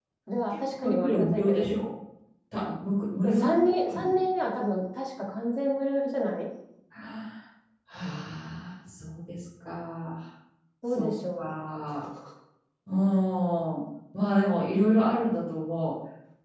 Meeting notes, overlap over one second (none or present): present